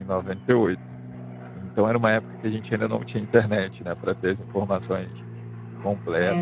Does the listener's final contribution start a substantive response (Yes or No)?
No